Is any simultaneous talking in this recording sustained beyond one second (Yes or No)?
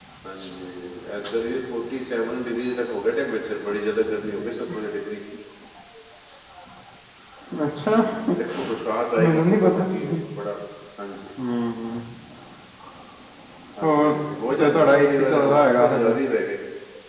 Yes